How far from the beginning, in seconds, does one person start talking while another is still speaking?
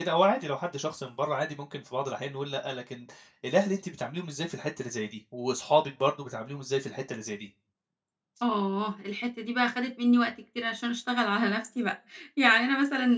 none

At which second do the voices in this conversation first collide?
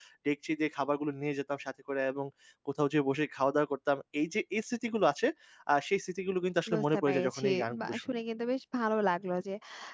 6.7 s

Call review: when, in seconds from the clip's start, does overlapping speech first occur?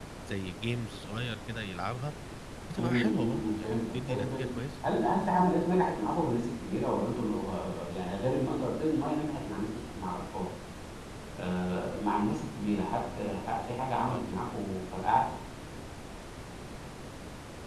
2.8 s

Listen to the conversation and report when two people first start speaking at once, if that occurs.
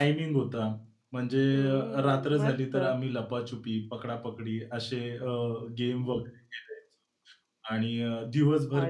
1.4 s

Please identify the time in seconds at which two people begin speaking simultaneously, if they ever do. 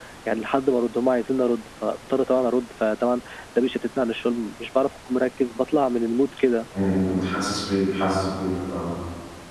none

